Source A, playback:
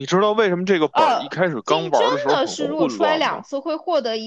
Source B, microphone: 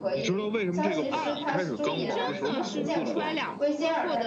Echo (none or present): present